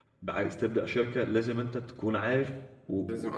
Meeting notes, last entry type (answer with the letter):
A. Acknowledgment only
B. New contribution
A